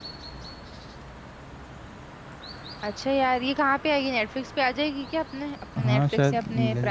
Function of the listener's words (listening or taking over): taking over